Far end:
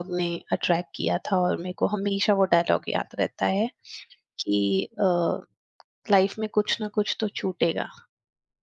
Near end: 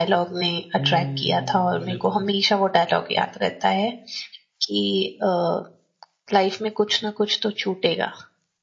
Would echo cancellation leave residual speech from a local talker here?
Yes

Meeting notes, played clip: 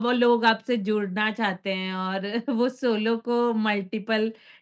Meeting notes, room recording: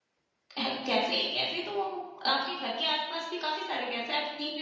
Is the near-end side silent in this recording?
No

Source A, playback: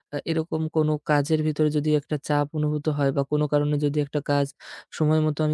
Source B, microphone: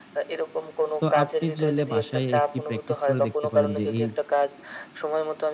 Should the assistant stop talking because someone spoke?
Yes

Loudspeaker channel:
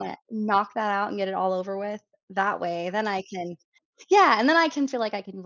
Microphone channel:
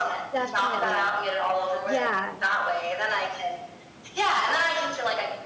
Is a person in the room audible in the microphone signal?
Yes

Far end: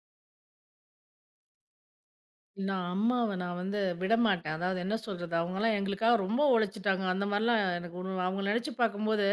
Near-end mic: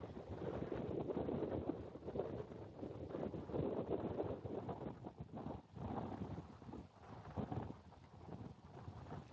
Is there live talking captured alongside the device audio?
No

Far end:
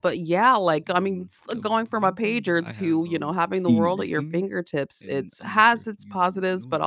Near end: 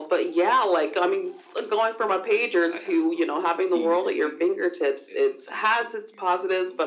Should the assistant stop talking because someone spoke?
No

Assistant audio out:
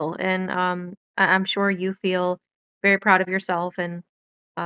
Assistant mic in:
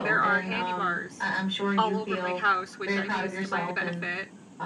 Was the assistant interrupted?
Yes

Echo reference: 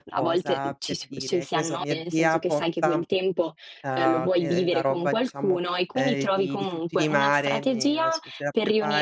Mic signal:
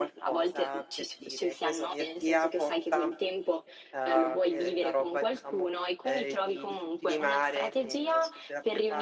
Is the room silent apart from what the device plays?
Yes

